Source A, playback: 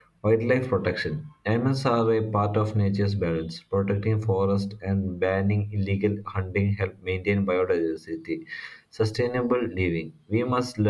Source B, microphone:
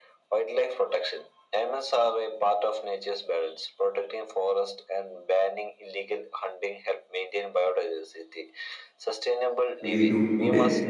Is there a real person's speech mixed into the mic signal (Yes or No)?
Yes